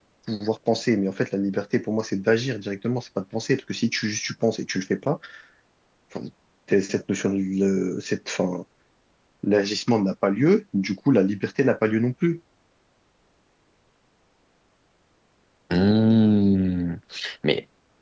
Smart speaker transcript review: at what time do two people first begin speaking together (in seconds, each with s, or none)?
none